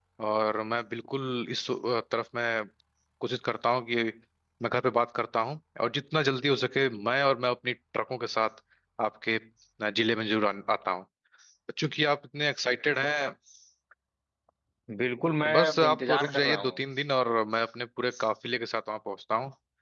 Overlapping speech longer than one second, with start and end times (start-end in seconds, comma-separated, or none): 15.4-16.8